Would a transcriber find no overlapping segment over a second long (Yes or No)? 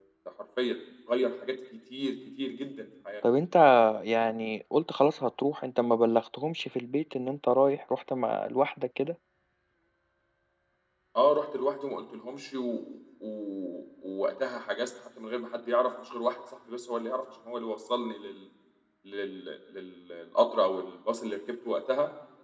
Yes